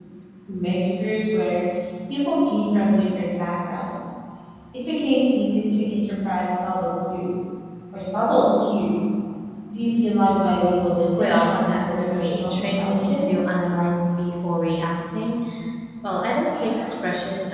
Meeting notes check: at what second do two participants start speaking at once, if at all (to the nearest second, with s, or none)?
11 s